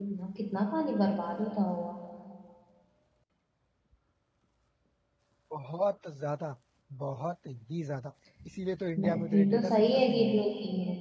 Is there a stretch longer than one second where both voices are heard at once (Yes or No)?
Yes